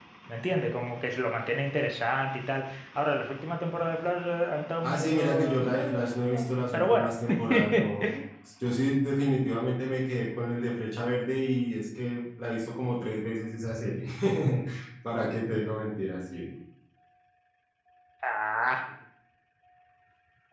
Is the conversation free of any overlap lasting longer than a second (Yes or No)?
No